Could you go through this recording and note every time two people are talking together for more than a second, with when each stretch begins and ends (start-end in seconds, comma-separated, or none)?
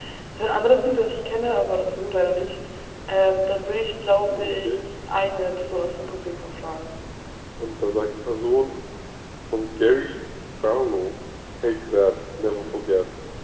none